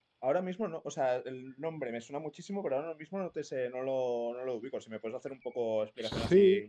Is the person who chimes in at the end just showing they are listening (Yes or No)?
No